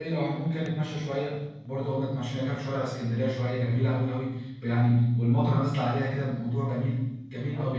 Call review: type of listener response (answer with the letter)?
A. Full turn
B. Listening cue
A